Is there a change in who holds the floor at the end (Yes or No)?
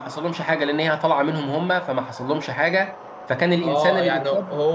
Yes